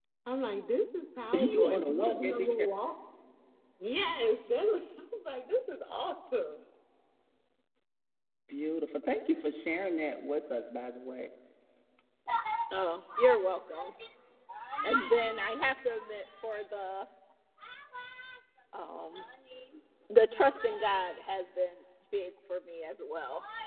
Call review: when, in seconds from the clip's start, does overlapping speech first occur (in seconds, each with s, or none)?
1.3 s